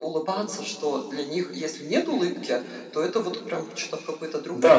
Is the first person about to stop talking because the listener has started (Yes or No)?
Yes